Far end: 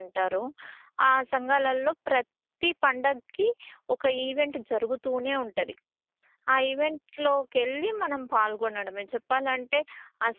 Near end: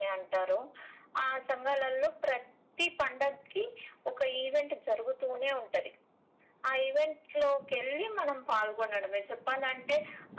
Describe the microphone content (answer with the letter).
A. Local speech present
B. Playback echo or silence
B